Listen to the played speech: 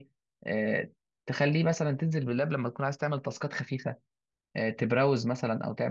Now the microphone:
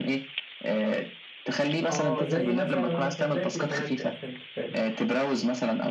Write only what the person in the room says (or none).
اه زي مثلا اه فهمت زي التليفونات كده فهمت فهمت